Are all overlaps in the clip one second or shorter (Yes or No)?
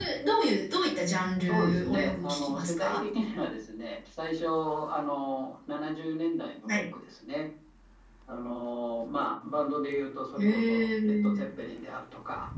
No